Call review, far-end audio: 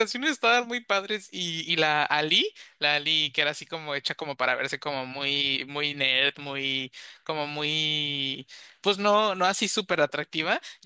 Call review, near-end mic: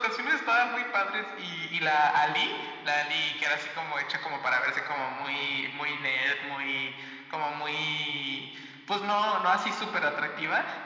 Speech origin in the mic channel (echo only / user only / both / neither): echo only